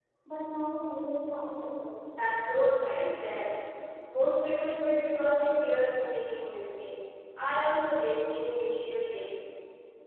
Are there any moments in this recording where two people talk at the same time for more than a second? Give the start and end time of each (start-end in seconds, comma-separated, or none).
none